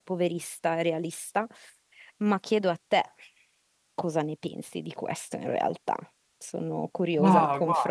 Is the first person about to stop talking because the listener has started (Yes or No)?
Yes